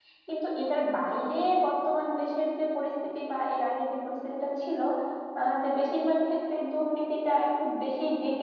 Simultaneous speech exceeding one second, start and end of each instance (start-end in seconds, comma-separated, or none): none